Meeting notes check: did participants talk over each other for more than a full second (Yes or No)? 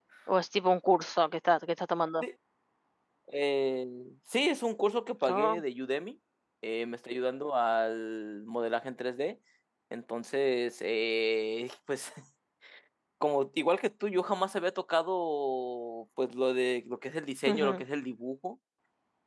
No